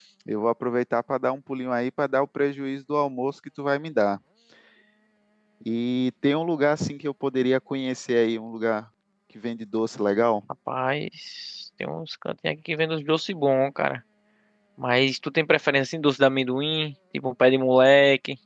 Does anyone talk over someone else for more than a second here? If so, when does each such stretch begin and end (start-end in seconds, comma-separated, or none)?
none